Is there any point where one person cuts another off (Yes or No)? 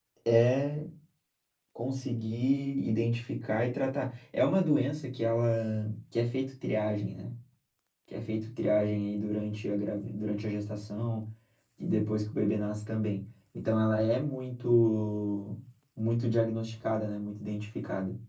No